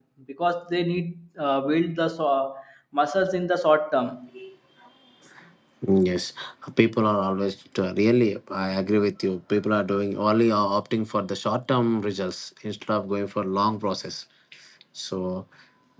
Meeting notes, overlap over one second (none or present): none